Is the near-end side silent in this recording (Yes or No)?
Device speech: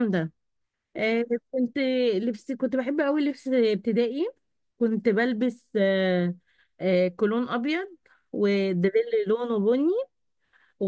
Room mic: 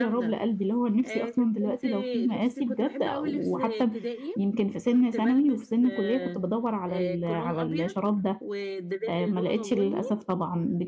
No